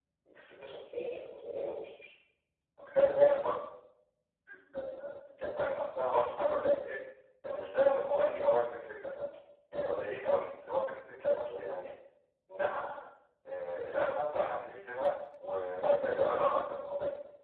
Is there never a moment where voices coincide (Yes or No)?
Yes